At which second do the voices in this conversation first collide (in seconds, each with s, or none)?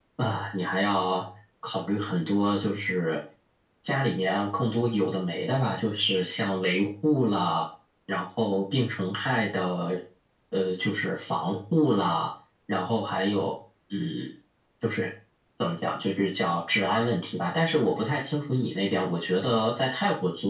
none